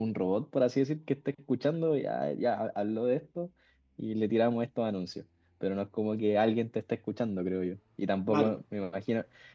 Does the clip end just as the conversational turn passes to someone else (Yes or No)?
No